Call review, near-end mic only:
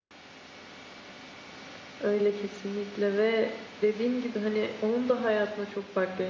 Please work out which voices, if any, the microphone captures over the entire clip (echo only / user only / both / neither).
user only